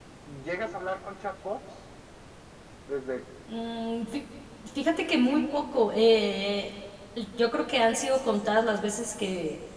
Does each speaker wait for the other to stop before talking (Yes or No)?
Yes